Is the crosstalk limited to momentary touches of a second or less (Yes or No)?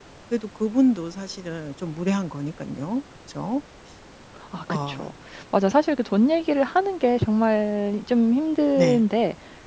Yes